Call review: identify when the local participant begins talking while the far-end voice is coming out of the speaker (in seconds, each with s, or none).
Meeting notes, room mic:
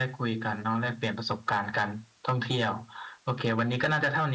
none